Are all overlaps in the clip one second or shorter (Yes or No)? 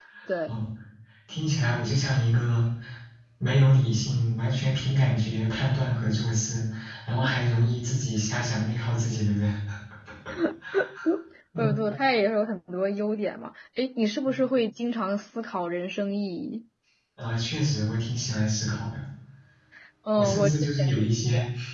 No